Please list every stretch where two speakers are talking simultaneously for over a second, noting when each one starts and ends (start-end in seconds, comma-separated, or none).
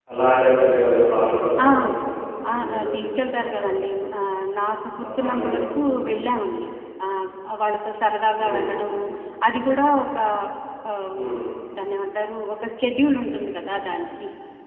2.5-3.8